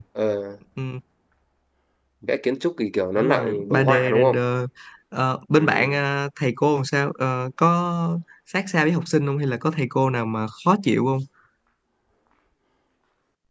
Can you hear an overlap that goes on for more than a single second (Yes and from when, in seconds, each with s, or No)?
Yes, from 3.2 s